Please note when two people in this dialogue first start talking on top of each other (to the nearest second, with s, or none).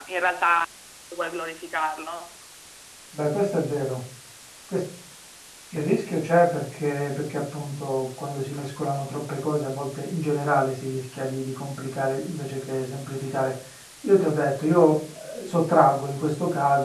none